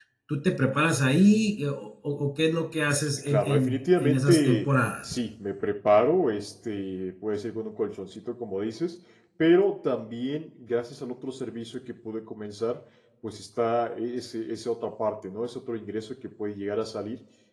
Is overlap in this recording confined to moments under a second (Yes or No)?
No